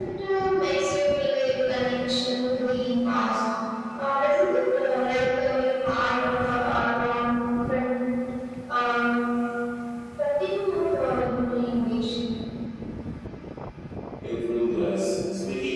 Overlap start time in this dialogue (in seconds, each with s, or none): none